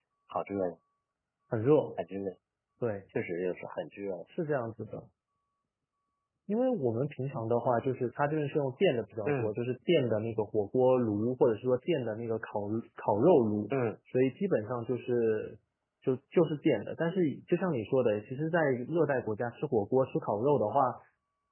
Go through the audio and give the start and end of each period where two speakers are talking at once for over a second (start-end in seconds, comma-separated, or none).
none